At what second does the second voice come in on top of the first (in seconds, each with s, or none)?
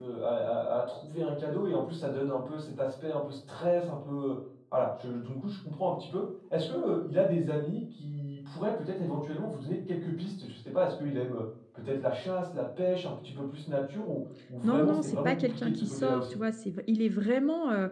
14.6 s